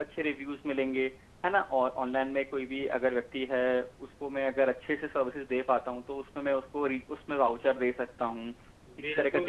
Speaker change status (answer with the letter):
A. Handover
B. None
A